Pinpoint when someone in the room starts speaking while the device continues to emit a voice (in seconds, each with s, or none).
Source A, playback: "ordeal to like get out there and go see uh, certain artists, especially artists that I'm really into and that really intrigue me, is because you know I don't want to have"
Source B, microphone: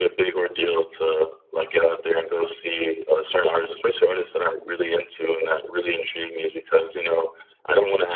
none